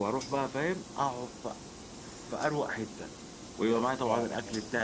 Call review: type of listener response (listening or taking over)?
listening